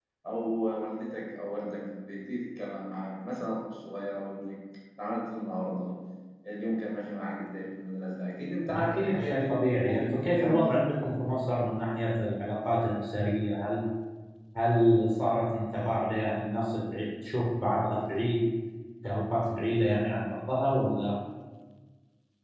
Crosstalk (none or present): present